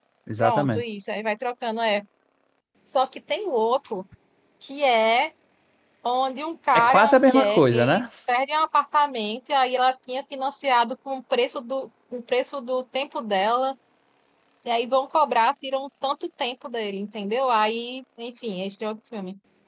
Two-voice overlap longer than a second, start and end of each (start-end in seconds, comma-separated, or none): 6.7-8.1